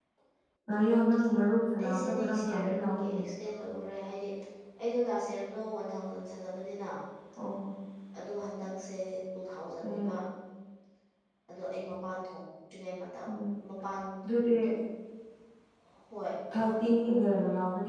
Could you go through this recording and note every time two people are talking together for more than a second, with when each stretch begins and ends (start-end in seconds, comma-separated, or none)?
1.8-3.2